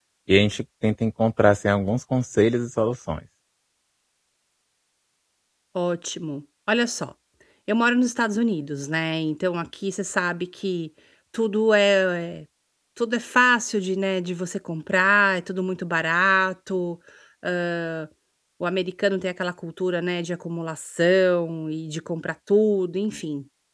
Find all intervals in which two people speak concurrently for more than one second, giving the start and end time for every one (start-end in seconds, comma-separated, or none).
none